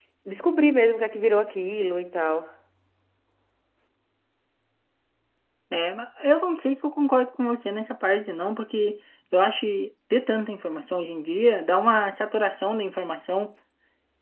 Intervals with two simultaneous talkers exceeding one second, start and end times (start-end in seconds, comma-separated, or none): none